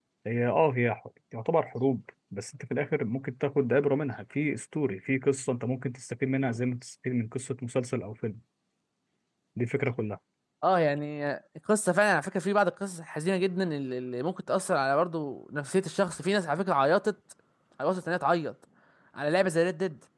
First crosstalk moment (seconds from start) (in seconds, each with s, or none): none